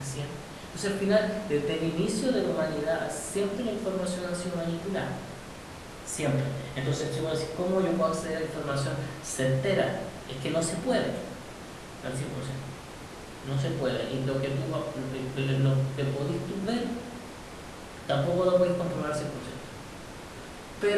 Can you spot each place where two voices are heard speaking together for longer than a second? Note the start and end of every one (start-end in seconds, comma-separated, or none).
none